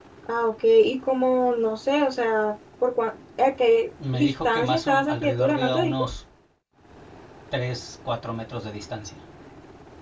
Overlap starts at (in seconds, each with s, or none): 4.0 s